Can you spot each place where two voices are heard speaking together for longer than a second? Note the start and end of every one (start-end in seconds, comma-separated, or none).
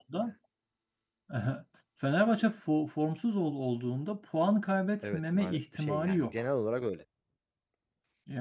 5.0-6.4